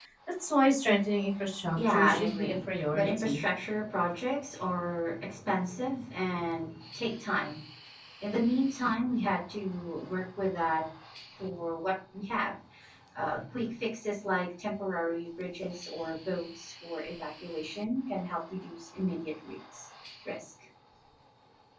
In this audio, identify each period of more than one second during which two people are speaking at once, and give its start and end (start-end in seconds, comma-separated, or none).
1.8-3.4